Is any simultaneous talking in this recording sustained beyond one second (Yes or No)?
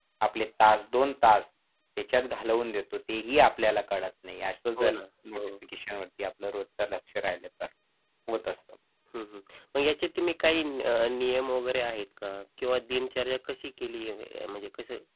No